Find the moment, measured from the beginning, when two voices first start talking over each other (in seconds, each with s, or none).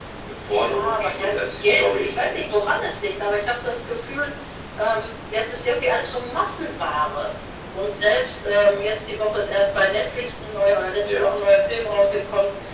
0.5 s